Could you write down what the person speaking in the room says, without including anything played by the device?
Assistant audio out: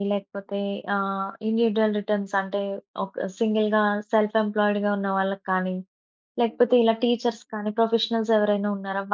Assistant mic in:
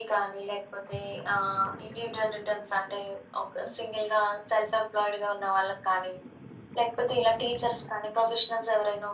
none

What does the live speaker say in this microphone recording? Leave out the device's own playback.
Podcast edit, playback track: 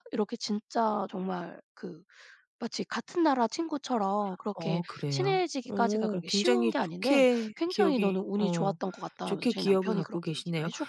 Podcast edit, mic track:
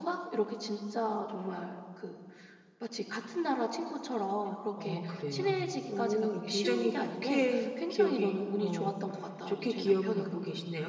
none

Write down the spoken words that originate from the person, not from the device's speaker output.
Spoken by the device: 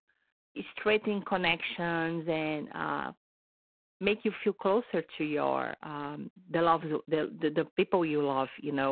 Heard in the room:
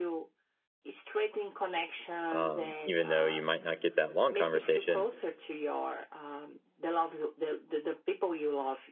um, even though you might not get that long conversation,

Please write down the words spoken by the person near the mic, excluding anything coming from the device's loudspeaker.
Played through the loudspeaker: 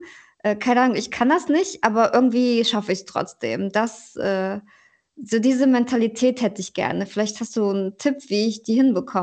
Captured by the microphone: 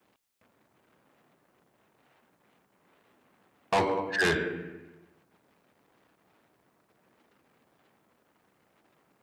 Okay.

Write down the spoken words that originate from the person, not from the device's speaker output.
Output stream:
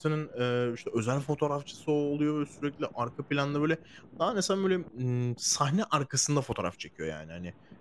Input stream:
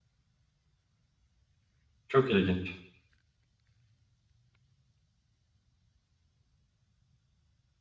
Çok ilginç.

